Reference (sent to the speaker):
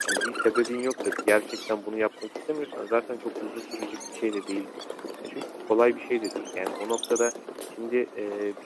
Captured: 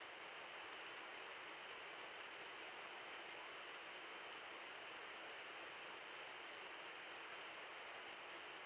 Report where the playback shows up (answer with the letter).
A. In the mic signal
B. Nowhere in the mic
B